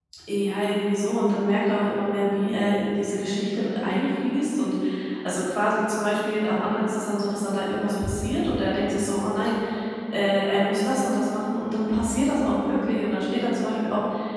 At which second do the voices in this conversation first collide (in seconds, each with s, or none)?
none